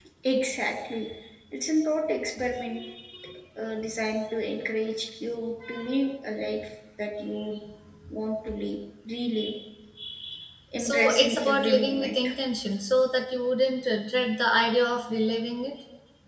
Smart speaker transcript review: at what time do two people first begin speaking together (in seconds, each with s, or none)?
10.8 s